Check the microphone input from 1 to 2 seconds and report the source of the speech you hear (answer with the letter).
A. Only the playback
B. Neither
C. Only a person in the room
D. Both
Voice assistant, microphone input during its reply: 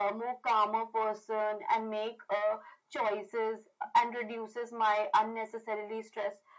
A